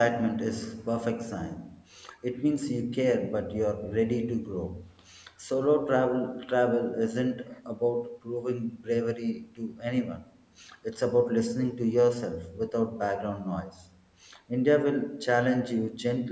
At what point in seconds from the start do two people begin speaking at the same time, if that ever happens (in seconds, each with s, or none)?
none